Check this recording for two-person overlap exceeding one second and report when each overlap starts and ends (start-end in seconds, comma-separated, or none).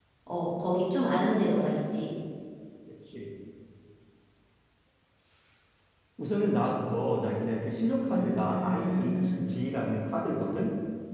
8.1-9.5